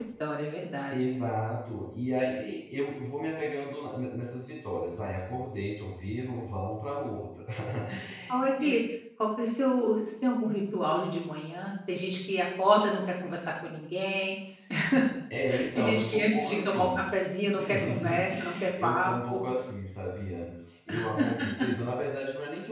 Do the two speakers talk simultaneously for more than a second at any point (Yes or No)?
Yes